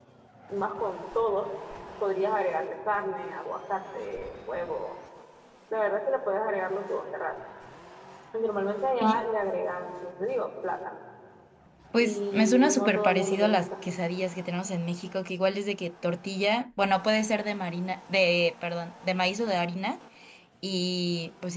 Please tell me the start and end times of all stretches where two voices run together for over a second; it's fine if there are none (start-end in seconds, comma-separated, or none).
12.0-13.6